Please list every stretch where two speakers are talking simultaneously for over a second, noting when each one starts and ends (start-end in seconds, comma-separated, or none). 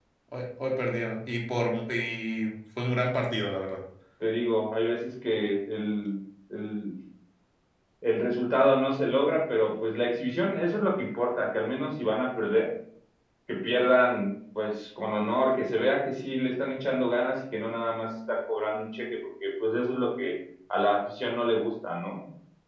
none